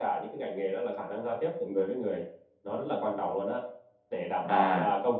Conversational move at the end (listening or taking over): listening